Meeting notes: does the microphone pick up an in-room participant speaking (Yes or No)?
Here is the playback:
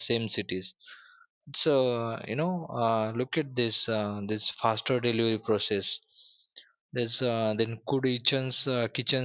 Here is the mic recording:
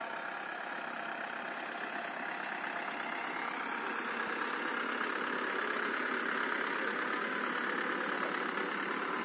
No